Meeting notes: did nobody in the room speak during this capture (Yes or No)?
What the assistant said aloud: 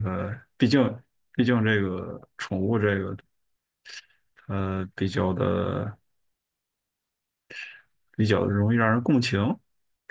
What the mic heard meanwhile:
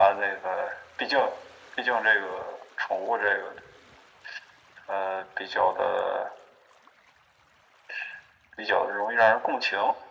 Yes